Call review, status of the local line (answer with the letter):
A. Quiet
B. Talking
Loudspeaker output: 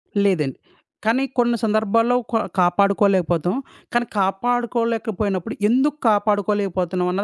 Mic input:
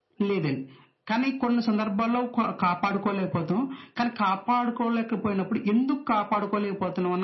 A